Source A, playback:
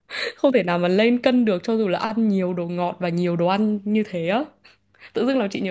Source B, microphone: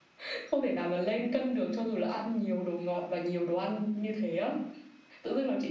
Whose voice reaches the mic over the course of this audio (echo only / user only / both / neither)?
echo only